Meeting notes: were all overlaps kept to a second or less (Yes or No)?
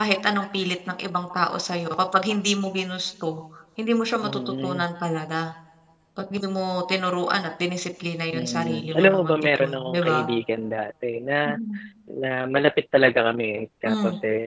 No